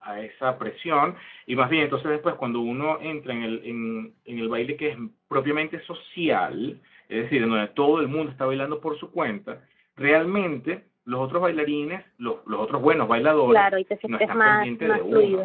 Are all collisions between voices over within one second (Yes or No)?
No